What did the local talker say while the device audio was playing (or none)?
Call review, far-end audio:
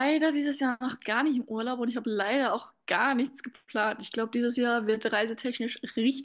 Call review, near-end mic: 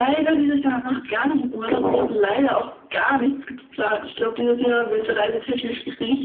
Genau.